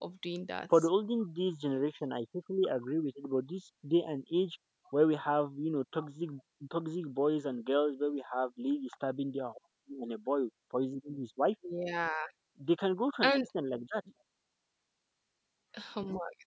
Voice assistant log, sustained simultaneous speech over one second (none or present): none